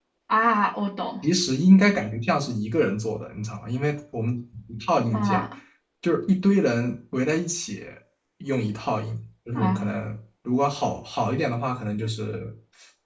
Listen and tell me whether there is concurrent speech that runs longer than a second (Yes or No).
No